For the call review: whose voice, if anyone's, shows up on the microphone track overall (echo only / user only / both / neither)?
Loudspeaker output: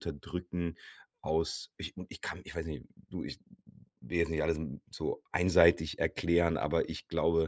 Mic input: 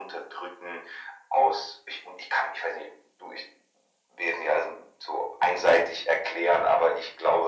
echo only